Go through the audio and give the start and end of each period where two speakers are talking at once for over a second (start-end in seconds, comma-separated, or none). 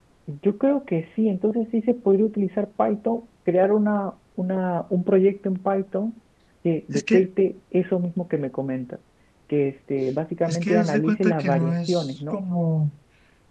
10.5-12.4